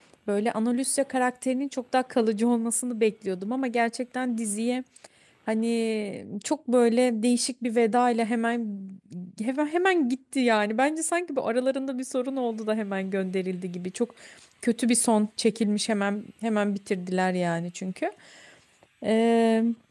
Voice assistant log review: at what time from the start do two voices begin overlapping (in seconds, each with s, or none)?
none